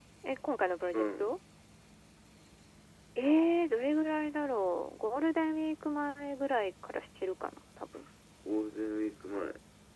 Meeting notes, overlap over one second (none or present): none